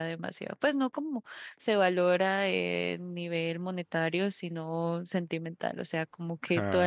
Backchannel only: Yes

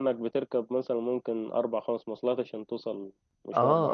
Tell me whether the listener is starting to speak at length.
Yes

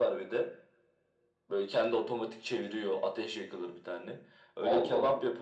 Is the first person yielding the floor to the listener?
No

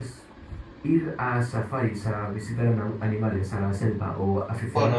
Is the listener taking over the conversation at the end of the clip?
Yes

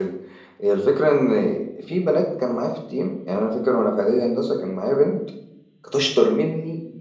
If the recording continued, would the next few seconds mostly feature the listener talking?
No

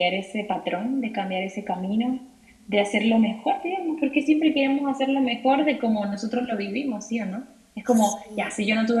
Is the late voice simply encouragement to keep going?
Yes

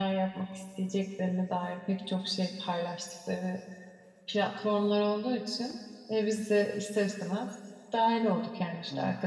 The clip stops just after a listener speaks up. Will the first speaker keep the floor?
Yes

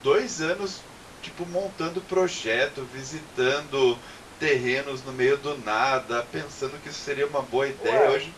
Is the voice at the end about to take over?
No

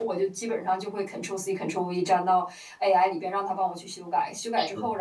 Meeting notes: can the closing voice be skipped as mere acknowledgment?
Yes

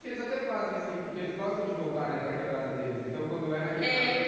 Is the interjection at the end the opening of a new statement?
No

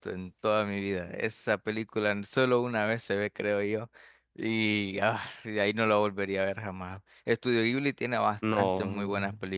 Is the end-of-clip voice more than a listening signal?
No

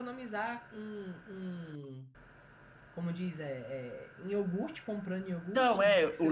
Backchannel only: No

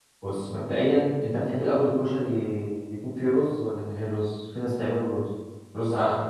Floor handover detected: Yes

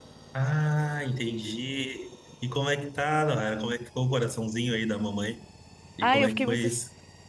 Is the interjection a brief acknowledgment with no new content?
No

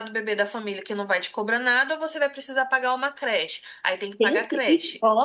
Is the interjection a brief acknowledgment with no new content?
No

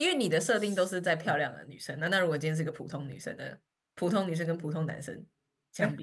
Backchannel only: No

